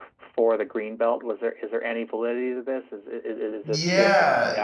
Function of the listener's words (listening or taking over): taking over